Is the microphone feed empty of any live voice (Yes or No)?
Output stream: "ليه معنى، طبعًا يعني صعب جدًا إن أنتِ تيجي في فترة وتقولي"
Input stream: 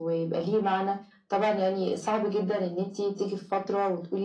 Yes